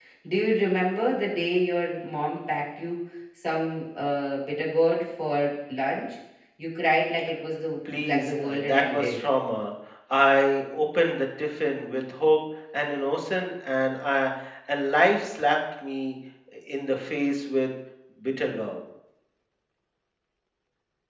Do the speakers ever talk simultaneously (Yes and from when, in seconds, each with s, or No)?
Yes, from 7.8 s